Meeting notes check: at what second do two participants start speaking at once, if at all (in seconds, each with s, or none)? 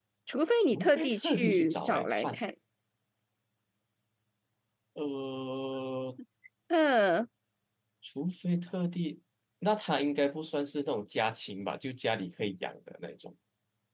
0.7 s